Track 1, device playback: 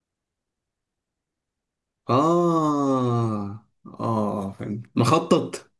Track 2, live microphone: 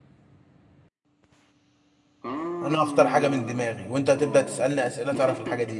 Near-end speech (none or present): present